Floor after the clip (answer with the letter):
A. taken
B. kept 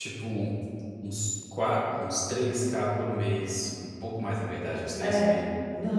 A